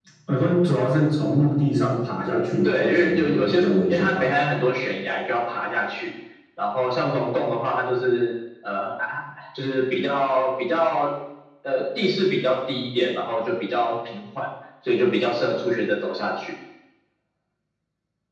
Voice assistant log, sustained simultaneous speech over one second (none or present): present